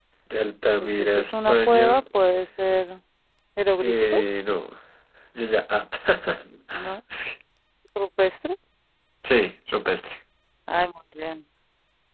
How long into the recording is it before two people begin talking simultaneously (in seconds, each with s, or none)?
0.8 s